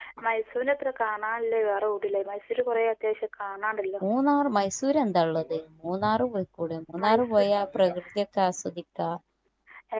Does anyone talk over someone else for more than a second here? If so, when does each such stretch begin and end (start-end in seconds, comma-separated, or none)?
none